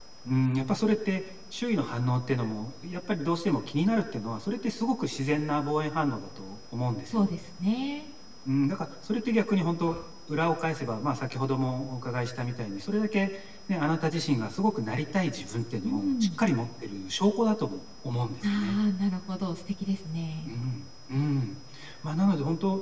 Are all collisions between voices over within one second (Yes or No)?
Yes